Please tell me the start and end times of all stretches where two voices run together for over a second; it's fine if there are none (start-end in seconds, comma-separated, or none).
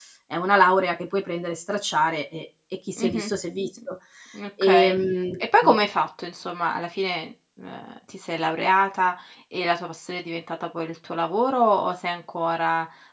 none